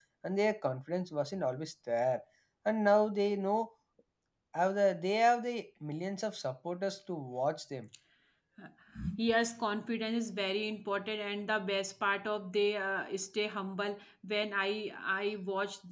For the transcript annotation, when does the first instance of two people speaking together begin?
none

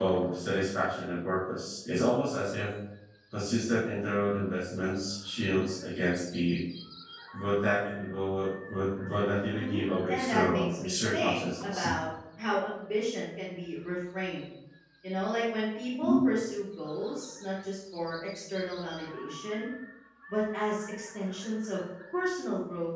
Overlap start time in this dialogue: 9.5 s

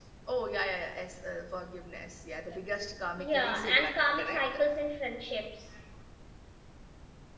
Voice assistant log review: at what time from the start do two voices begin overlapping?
3.2 s

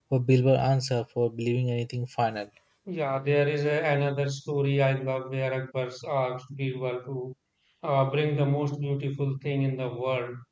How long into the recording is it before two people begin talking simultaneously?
none

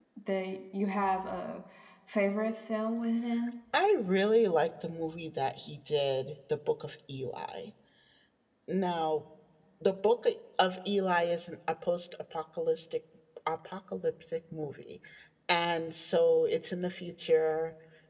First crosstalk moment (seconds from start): none

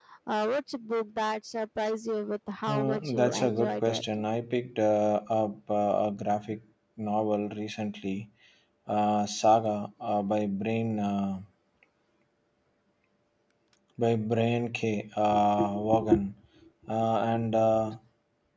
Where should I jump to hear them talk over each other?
2.7 s

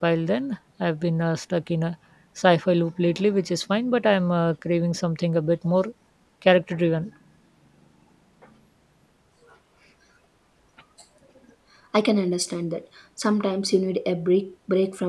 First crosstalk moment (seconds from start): none

